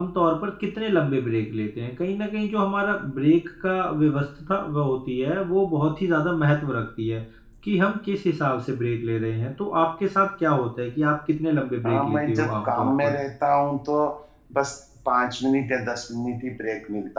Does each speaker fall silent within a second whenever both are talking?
No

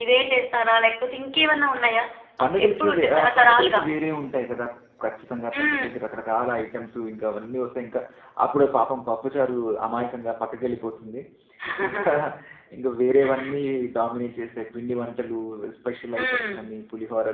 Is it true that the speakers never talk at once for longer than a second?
No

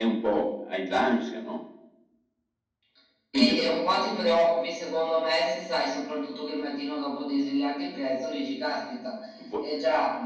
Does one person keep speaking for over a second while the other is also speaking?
No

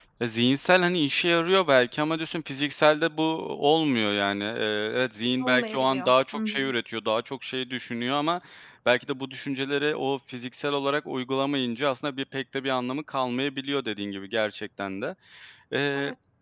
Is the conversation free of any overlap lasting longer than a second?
No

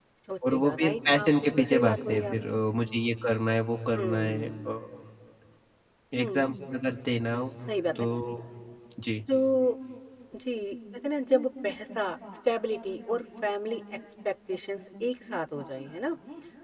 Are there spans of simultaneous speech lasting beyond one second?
Yes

